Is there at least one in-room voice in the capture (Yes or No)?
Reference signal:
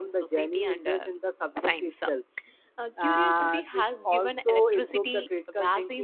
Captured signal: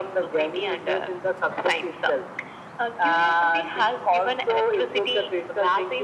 No